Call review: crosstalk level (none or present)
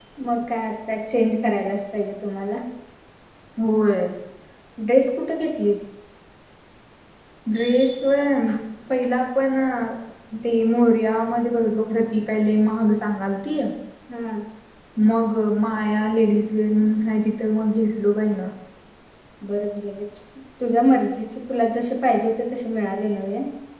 none